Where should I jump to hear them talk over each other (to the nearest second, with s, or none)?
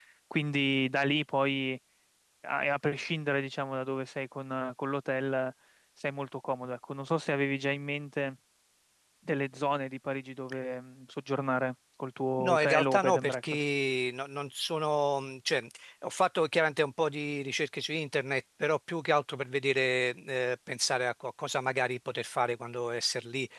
12 s